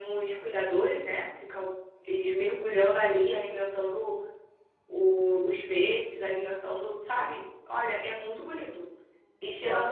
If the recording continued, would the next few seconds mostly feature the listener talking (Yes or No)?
No